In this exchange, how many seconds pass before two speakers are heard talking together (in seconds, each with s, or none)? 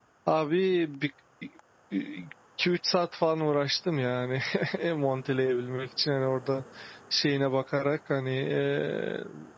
none